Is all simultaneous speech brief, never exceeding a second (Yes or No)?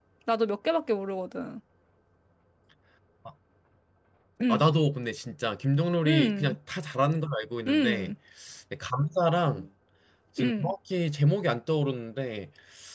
Yes